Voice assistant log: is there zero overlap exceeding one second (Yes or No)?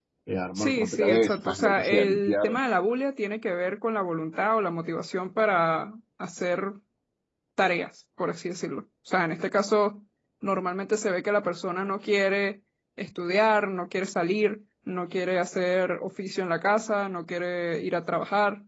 No